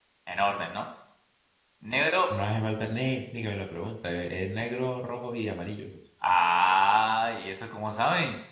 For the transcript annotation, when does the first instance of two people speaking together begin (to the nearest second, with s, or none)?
none